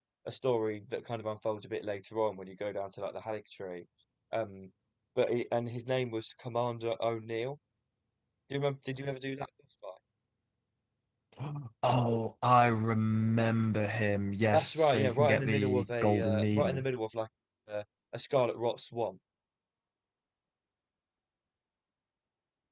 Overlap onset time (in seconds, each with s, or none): 14.5 s